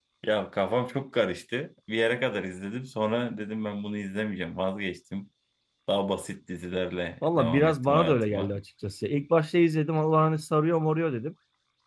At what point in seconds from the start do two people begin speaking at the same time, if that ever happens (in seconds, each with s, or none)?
7.2 s